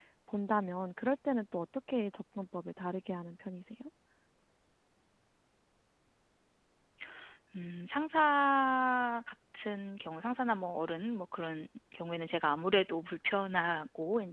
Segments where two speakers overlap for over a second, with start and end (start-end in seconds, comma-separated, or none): none